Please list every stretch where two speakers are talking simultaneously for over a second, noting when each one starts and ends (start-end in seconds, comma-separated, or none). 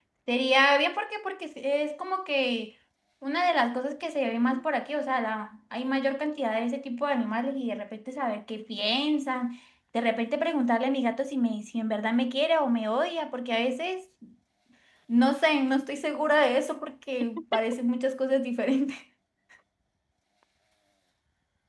none